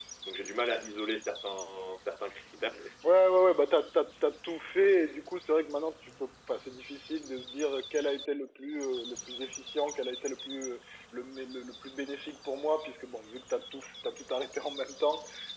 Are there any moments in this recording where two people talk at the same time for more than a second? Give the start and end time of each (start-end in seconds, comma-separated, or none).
none